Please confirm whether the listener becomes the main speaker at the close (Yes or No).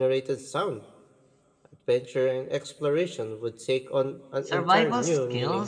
Yes